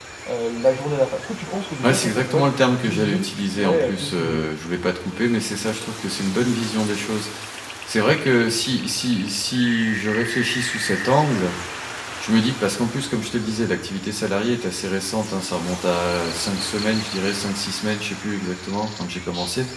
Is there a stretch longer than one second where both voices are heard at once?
Yes, from 1.8 s

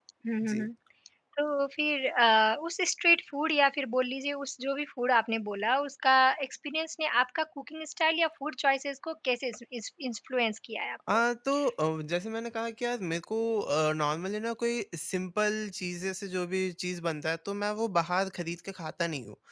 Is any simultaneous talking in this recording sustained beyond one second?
No

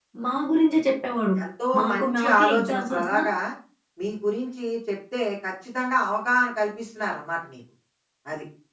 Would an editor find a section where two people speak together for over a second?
Yes, from 1.8 s

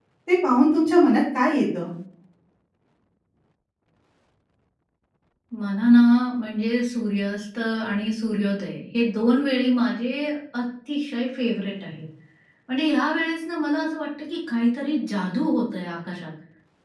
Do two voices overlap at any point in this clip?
No

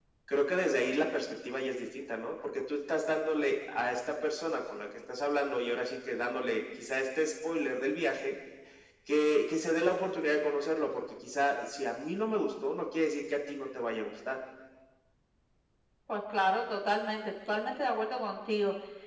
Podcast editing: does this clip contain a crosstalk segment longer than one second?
No

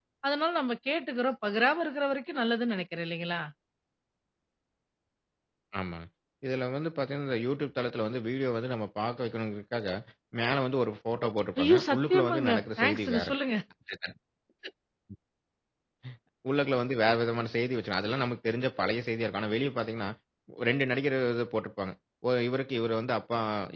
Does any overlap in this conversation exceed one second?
Yes, from 11.6 s

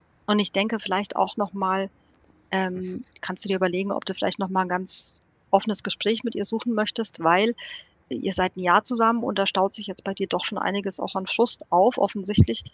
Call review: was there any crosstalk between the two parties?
No

